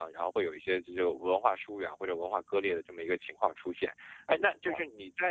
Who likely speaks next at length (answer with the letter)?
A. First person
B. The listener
A